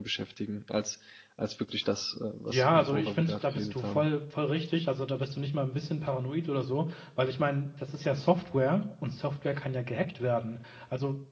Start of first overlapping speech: 2.5 s

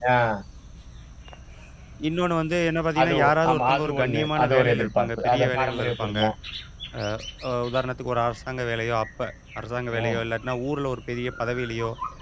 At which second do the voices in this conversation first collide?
3.0 s

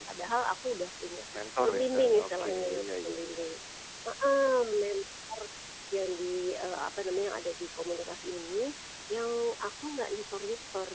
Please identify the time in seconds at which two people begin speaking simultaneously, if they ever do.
1.6 s

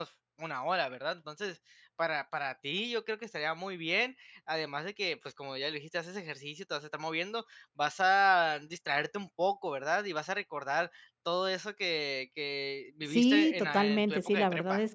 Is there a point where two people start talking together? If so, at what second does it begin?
13.1 s

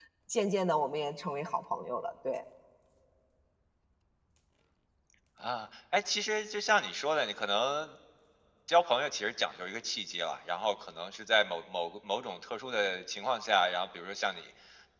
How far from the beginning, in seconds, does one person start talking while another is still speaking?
none

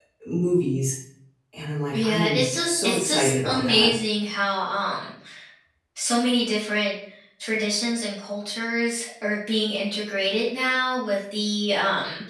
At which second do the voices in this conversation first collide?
1.9 s

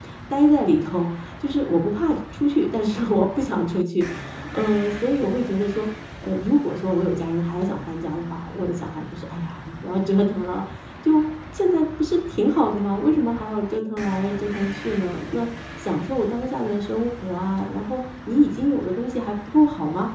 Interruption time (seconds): none

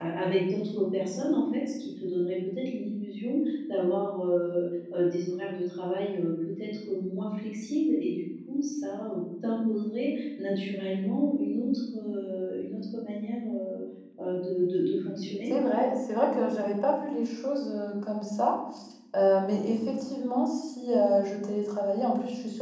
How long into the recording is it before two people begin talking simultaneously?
none

